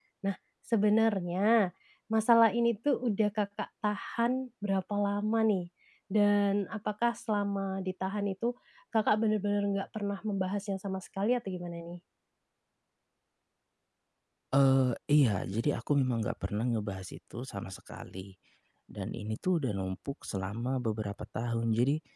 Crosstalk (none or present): none